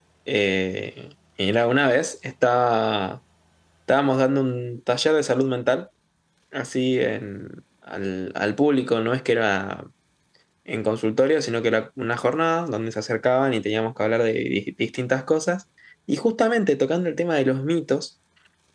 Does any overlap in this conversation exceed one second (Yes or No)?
No